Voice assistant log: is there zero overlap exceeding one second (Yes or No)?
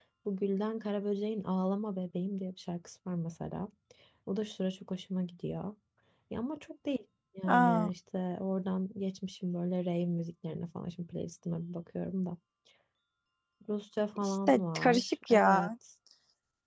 No